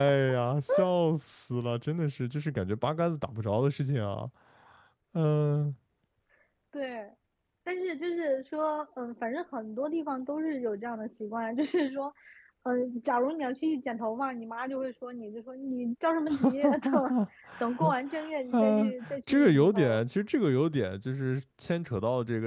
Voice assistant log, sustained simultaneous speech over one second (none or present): present